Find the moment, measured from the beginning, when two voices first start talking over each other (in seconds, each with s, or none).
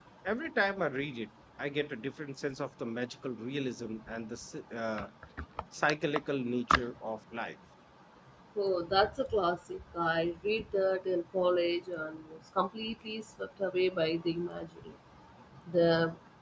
none